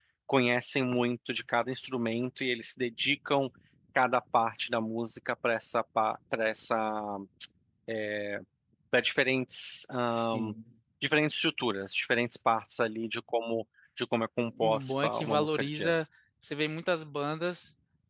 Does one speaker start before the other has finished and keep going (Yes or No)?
Yes